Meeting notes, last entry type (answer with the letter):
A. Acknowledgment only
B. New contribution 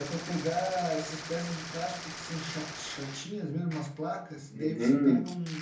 A